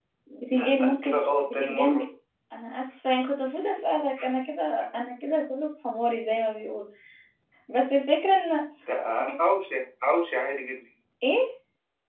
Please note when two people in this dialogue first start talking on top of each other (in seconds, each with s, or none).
0.5 s